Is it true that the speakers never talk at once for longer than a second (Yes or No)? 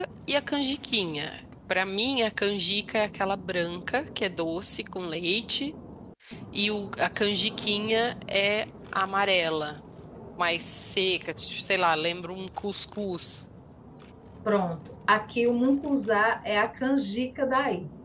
Yes